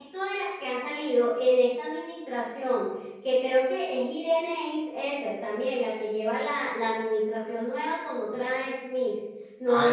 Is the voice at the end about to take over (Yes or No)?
Yes